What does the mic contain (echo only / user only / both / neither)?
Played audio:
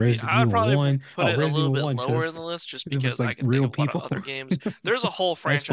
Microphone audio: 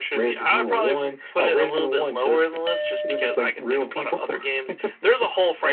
echo only